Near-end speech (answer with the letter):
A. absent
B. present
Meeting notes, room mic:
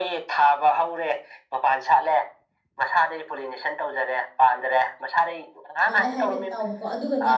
B